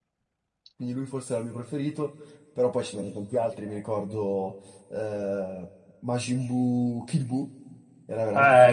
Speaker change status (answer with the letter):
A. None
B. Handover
B